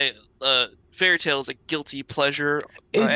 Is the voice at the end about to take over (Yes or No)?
Yes